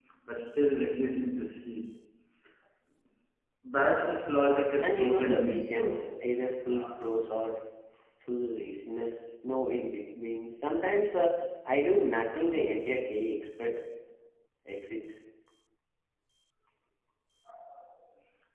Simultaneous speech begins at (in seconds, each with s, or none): 4.8 s